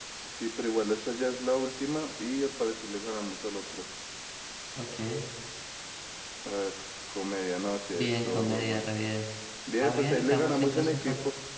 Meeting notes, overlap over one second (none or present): present